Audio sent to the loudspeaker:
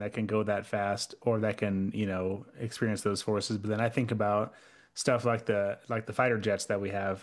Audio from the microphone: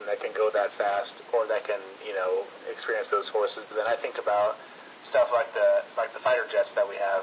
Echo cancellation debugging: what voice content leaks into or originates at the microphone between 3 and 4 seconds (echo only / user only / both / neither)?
echo only